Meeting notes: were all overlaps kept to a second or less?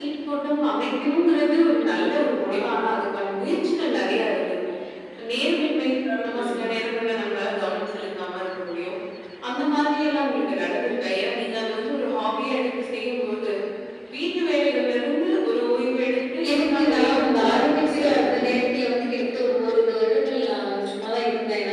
No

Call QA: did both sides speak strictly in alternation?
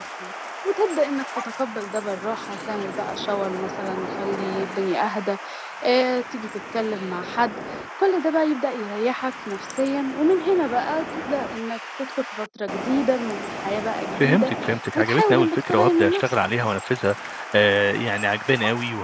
No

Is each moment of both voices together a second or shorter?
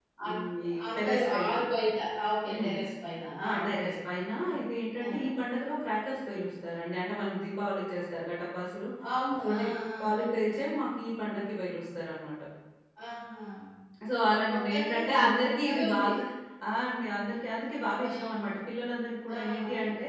No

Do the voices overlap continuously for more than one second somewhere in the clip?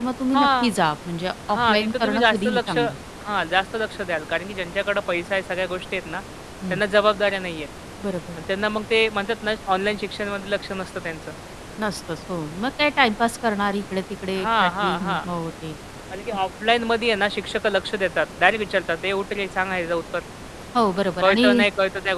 Yes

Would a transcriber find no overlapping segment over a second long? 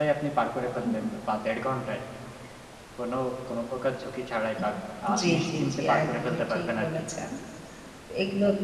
No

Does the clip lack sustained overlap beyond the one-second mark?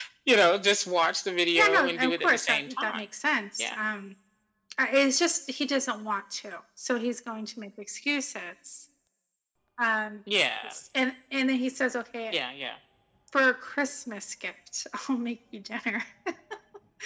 No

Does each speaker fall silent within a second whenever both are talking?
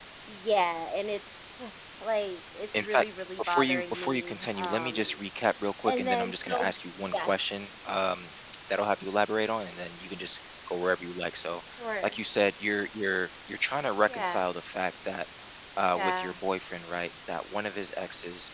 No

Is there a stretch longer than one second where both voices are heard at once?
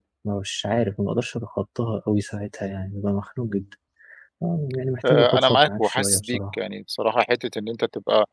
Yes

